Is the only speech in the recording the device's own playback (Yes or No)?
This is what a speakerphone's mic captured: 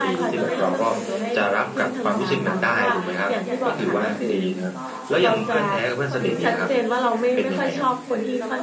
No